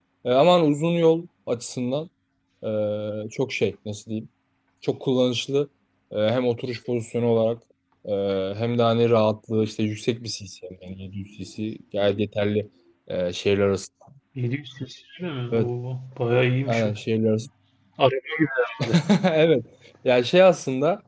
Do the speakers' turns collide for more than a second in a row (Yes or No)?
No